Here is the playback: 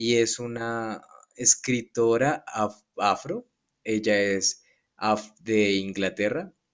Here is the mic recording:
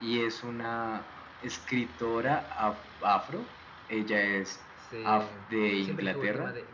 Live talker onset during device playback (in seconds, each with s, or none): 4.7 s